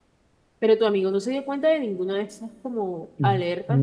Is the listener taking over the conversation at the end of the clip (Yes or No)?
Yes